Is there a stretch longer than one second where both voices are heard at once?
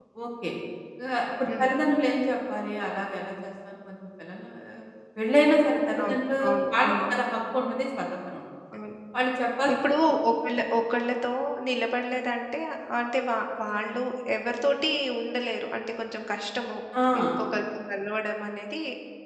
No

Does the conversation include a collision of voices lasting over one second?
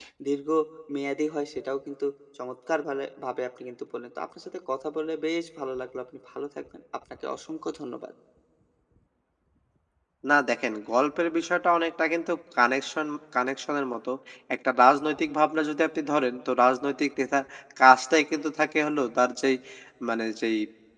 No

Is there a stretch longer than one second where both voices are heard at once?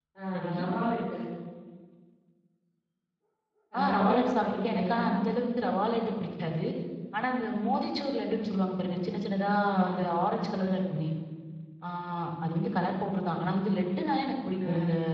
Yes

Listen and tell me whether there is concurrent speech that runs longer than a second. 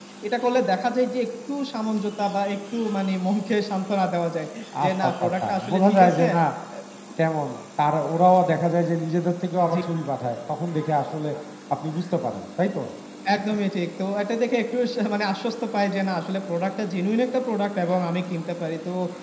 Yes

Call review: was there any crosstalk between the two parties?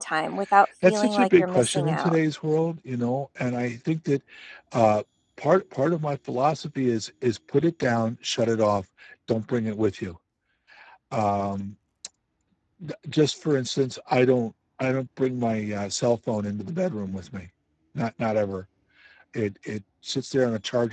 Yes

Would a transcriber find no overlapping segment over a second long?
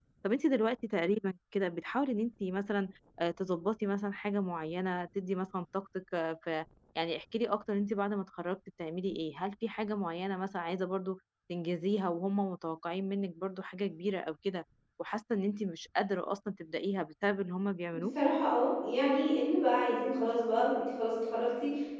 Yes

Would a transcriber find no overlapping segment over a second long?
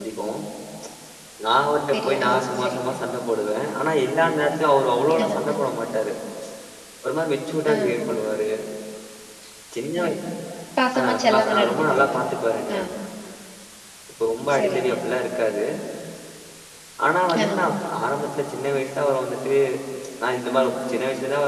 No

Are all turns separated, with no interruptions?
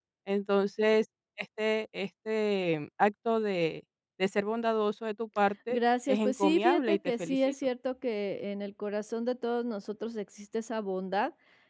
No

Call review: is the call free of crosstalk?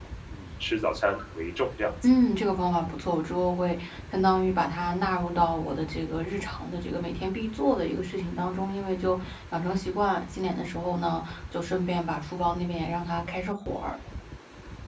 Yes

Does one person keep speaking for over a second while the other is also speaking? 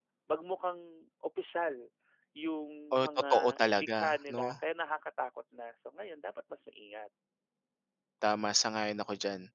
Yes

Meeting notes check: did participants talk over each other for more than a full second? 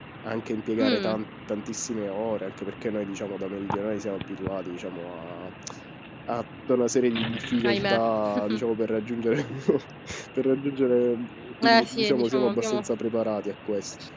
Yes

